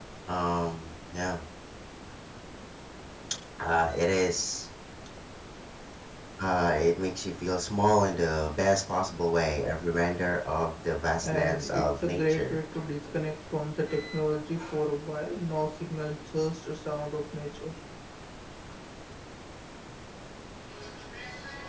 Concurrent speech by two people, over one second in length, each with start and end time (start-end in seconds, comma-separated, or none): 11.2-12.6